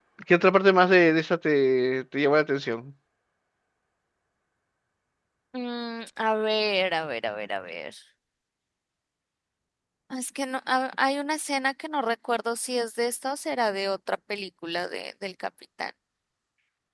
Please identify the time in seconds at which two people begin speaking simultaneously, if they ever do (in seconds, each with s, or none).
none